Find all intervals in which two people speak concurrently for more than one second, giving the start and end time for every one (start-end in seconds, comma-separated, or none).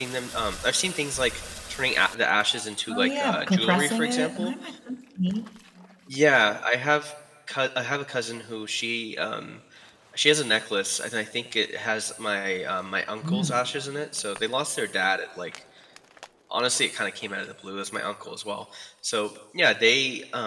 2.9-4.5